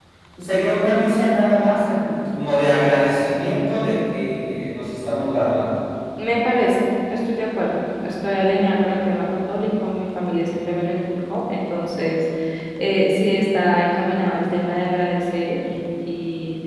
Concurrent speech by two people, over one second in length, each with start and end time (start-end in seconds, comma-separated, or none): none